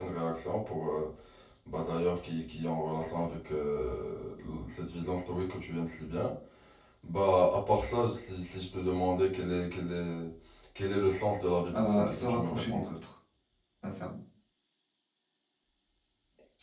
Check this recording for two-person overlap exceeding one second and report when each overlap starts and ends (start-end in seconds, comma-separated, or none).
11.8-13.0